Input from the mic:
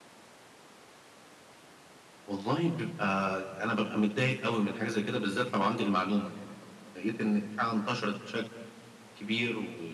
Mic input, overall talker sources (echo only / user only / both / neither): echo only